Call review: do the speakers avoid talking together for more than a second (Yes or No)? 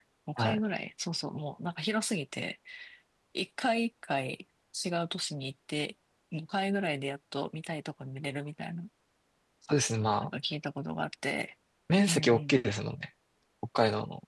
Yes